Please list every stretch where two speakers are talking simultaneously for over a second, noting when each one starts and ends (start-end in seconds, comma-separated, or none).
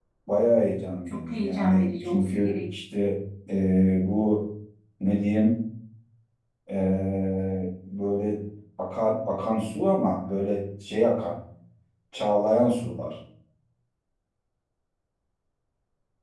1.1-2.6